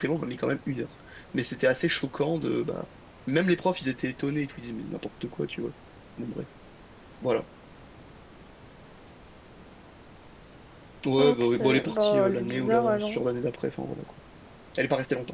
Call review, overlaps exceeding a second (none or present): present